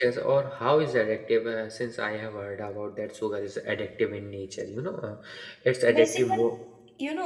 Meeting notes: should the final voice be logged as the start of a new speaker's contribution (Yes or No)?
Yes